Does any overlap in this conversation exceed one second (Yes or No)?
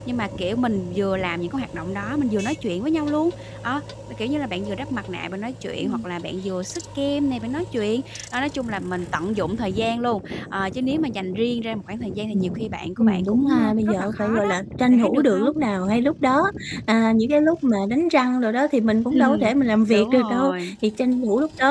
Yes